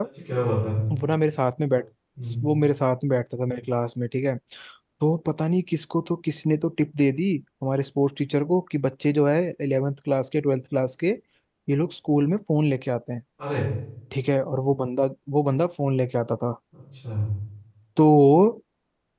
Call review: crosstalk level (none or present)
none